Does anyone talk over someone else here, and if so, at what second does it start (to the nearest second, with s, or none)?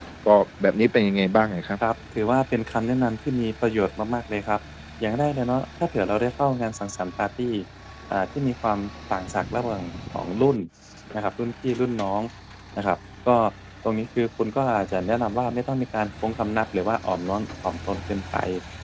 none